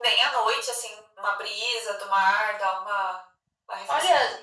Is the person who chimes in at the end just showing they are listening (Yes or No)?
No